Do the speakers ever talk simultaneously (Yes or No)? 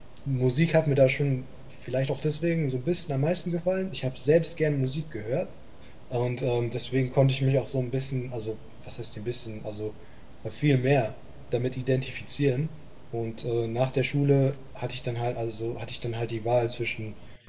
No